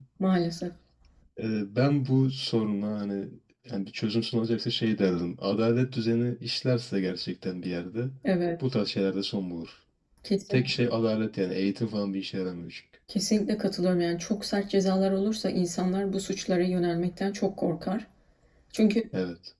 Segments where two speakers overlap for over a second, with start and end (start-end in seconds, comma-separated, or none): none